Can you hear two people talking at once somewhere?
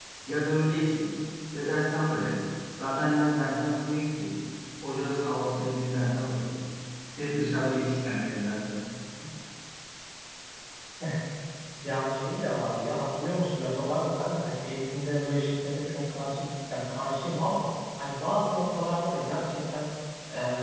No

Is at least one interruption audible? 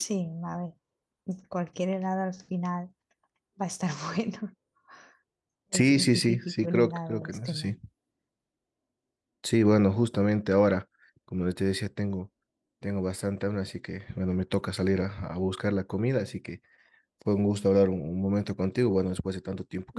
Yes, from 5.7 s

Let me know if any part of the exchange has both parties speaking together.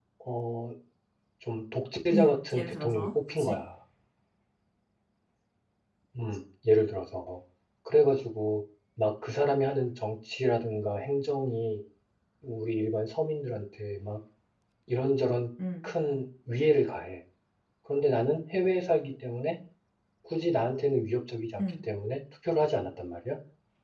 Yes, from 2.1 s

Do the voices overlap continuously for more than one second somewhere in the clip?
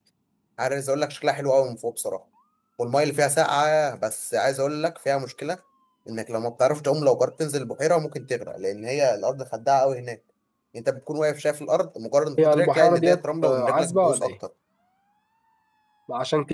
Yes, from 12.4 s

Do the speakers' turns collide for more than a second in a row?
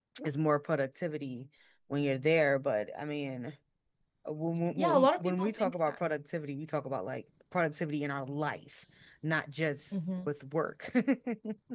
Yes, from 4.8 s

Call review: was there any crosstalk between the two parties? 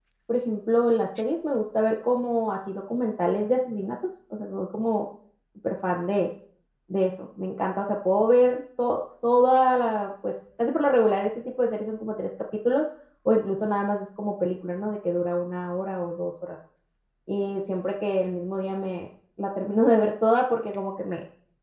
No

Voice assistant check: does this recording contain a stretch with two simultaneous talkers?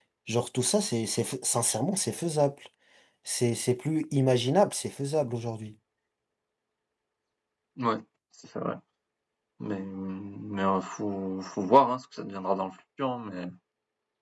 No

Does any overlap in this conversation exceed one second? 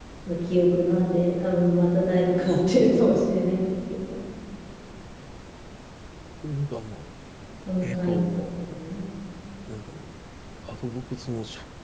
No

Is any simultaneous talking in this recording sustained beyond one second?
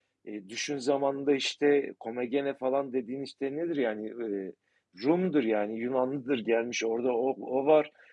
No

